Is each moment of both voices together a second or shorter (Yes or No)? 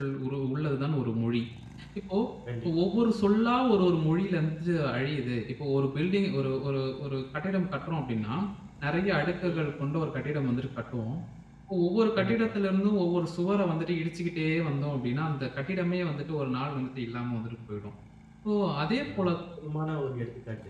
Yes